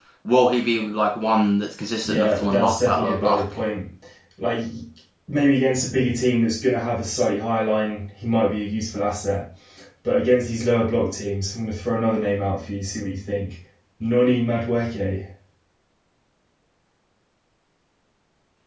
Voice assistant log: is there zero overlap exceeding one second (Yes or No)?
No